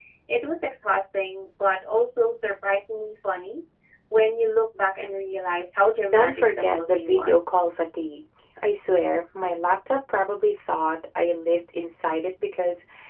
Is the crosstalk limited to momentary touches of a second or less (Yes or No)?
No